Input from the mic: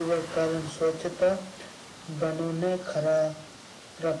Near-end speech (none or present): none